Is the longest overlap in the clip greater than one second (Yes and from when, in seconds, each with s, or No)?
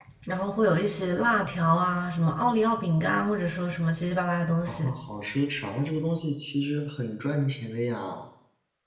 No